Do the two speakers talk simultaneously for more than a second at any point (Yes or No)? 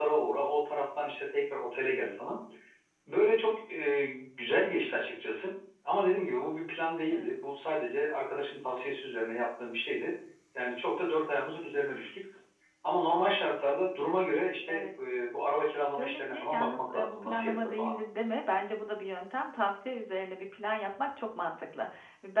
Yes